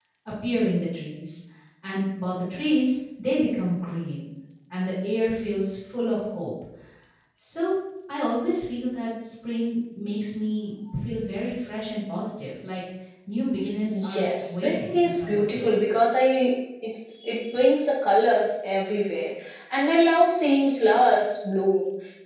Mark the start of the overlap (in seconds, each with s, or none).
13.9 s